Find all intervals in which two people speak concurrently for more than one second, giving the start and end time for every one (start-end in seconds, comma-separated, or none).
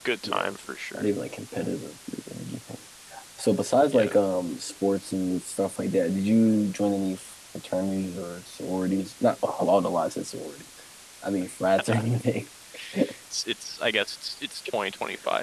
none